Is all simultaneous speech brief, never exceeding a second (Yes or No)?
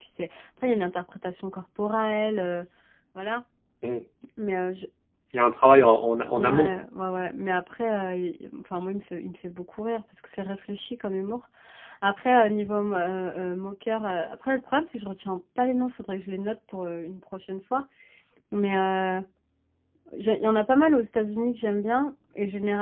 Yes